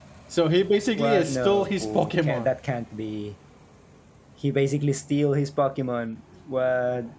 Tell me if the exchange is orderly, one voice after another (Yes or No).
No